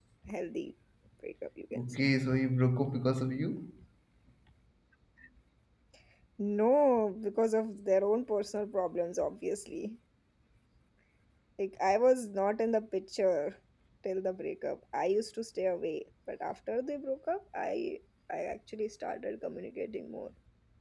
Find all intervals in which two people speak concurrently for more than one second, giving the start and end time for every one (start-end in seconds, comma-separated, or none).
none